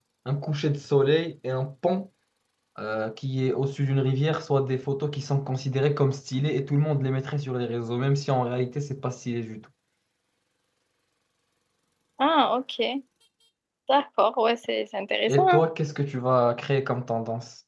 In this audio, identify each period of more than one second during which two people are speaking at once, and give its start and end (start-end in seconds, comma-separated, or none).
none